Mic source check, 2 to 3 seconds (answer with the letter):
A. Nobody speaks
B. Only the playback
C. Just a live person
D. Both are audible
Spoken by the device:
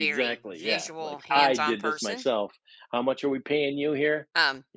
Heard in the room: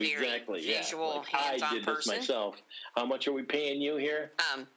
B